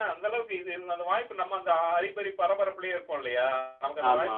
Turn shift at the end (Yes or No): No